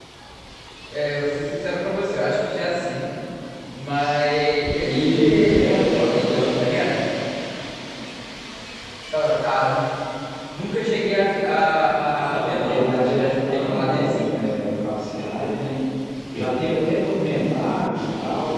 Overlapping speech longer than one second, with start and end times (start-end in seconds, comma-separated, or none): 5.0-6.5, 12.3-14.2